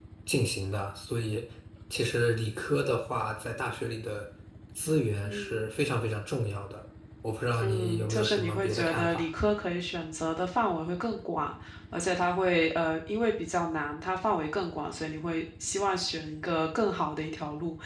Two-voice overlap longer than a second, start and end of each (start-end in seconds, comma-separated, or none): 7.6-9.2